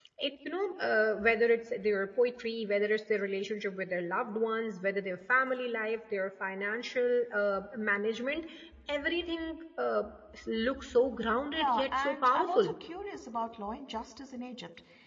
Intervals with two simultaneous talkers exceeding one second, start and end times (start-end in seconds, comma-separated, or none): 11.5-12.7